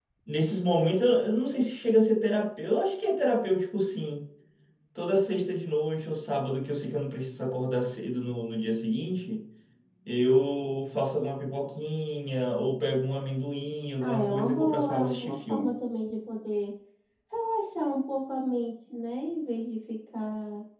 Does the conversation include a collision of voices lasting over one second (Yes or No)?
Yes